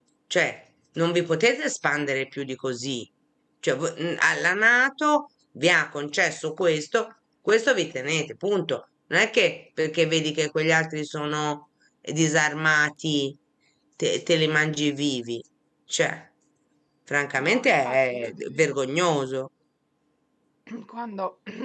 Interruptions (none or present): present